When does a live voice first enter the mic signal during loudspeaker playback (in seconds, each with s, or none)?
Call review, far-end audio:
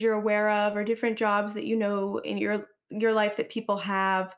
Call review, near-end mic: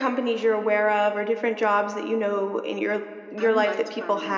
3.4 s